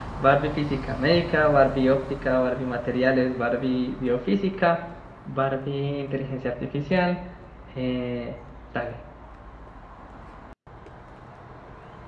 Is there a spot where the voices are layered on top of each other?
No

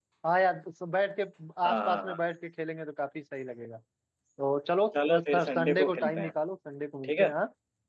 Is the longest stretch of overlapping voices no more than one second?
No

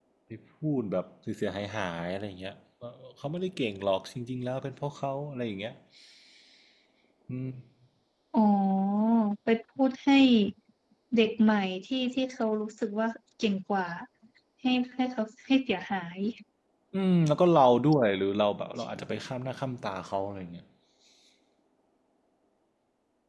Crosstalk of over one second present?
No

